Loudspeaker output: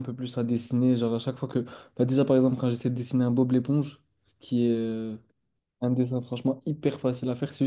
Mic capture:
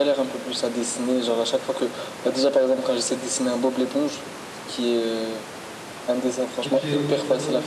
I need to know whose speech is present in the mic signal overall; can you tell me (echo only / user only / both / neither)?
both